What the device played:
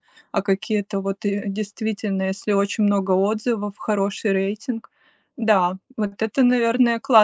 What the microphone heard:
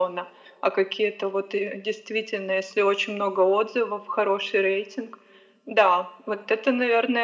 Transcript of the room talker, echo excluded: none

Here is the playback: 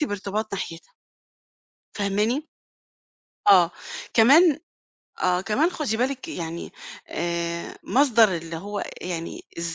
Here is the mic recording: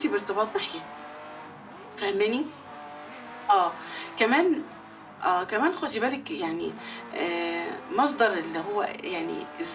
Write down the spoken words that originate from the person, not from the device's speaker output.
none

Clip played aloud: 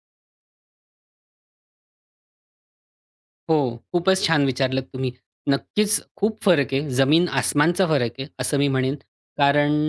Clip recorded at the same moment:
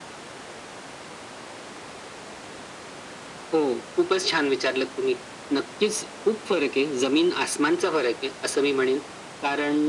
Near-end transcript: none

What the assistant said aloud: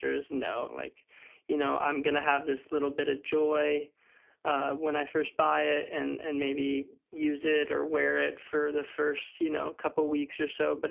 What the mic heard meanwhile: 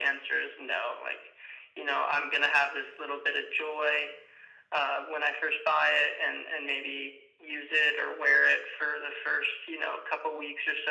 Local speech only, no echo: none

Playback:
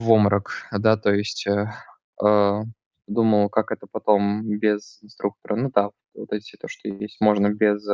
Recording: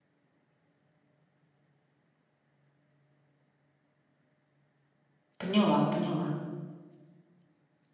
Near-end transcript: Поняла, поняла.

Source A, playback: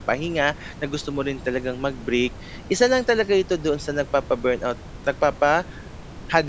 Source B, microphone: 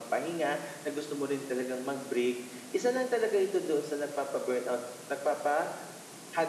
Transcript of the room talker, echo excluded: none

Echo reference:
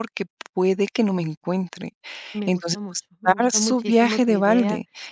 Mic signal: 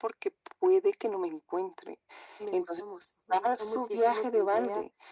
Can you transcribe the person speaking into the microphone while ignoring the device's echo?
none

